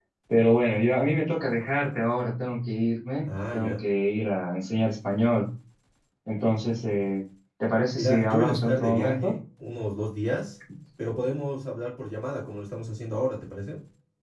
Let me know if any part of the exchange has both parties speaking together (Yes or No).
Yes